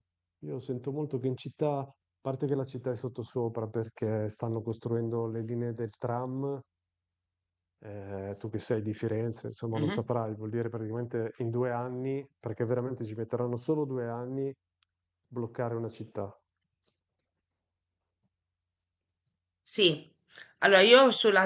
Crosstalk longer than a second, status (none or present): none